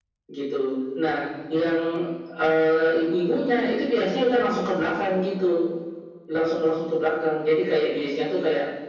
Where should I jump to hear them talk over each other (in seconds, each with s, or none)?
none